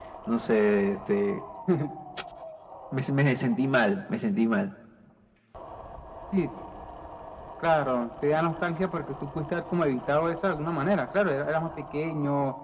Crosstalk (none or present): none